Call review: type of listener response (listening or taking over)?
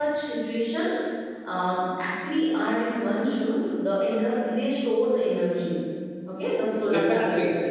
taking over